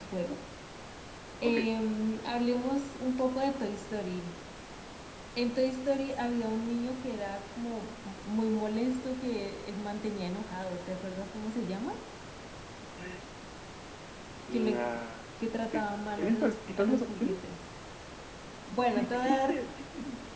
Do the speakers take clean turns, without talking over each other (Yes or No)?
No